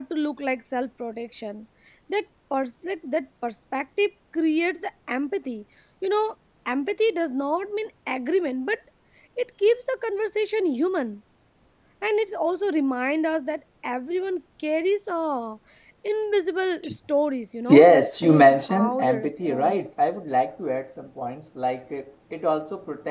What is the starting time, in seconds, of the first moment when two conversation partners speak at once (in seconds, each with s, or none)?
17.7 s